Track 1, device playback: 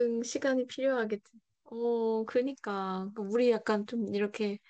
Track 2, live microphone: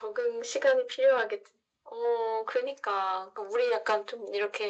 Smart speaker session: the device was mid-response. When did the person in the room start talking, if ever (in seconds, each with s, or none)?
none